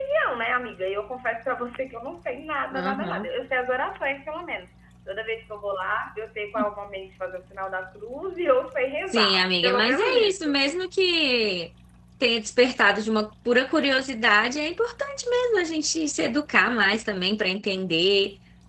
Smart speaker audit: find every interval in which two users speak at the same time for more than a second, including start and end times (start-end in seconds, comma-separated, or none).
9.1-10.5